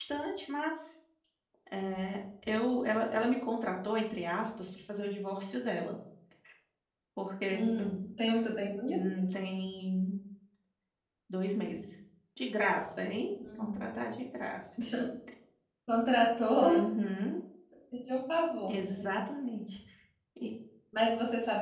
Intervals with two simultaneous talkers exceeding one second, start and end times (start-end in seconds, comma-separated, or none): none